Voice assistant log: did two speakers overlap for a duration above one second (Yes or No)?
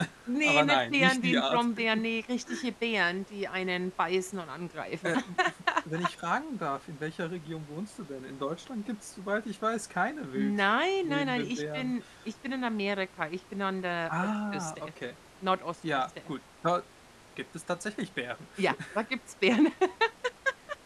Yes